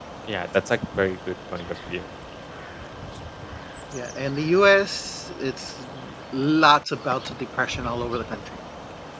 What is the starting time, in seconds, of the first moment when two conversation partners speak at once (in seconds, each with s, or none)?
none